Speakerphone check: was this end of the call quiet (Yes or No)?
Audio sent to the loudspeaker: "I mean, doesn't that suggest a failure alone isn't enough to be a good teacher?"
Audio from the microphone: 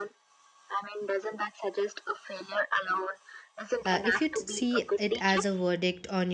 No